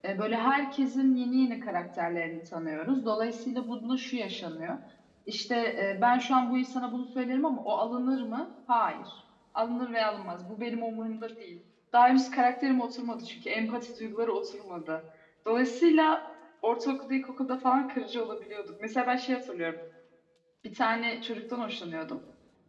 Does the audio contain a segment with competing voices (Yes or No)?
No